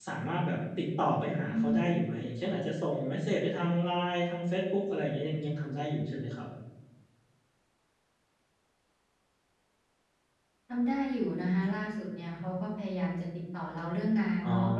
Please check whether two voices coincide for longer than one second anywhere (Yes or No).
No